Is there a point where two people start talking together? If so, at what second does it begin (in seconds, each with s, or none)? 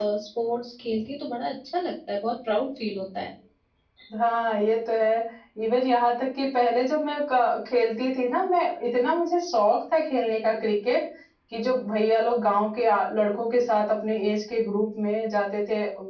none